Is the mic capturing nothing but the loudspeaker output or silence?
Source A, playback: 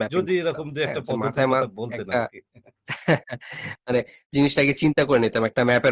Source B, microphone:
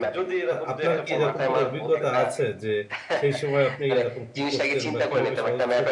No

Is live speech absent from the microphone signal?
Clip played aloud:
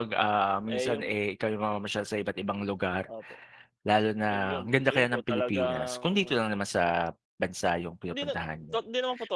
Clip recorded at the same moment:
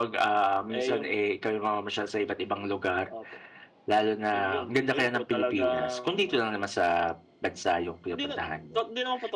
Yes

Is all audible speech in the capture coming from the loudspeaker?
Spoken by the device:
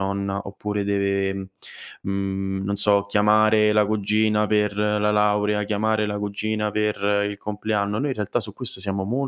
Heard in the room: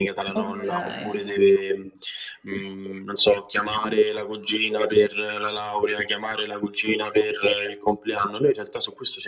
No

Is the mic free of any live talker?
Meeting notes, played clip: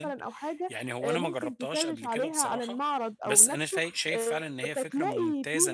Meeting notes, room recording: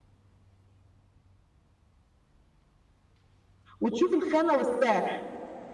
No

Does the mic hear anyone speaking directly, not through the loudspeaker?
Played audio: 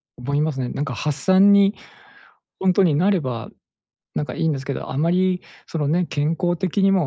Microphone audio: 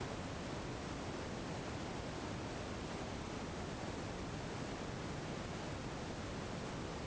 No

